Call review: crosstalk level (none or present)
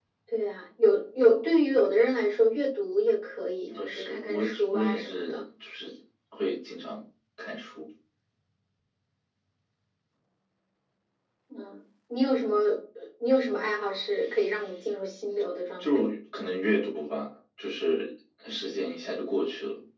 present